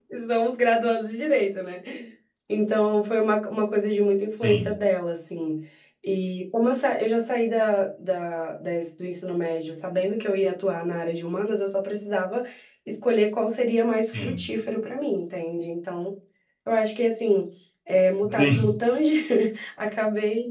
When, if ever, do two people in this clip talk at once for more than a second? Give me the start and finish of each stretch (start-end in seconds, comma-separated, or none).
none